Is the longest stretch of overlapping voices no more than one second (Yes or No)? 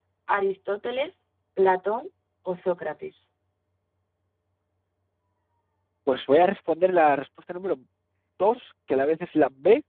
Yes